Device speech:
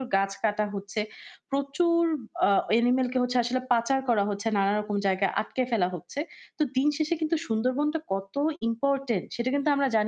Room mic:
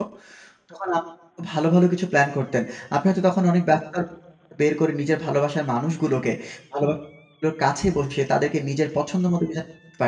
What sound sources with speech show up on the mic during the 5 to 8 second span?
user only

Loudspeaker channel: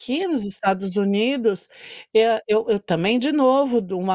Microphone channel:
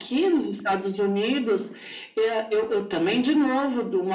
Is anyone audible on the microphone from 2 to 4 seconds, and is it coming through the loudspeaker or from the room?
echo only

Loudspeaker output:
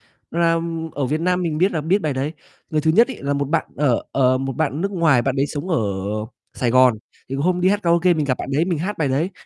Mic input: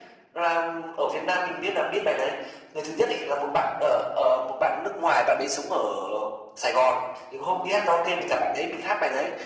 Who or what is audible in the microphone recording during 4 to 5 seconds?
echo only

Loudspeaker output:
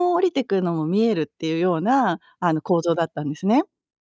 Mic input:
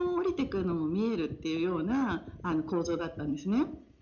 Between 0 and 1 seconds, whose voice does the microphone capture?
echo only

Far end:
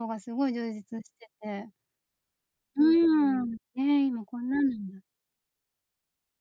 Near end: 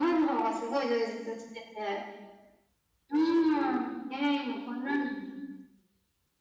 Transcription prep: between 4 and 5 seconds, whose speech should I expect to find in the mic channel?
echo only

